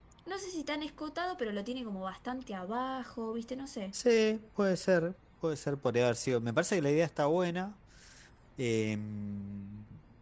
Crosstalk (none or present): none